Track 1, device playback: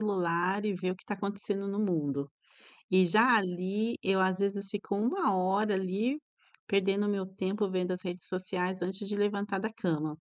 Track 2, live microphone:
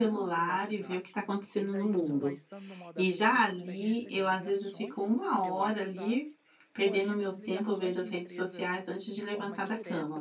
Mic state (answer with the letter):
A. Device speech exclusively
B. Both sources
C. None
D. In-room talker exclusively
B